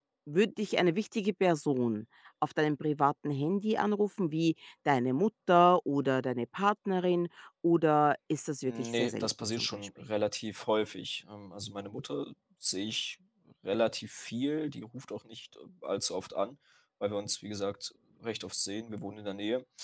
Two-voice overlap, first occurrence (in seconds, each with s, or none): 8.7 s